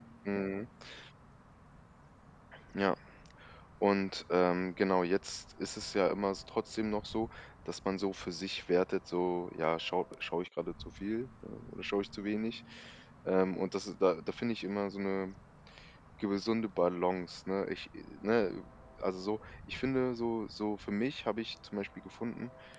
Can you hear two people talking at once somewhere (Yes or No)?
No